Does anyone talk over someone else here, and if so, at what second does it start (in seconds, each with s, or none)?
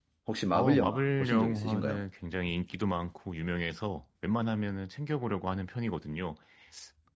0.5 s